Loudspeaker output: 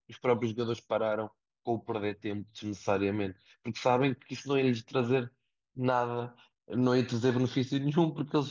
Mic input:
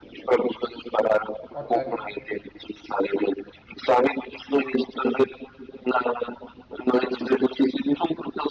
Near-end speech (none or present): present